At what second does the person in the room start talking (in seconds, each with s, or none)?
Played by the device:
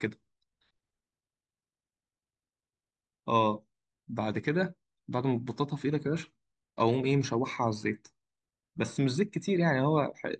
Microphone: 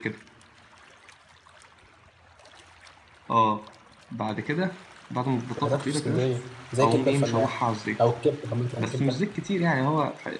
5.5 s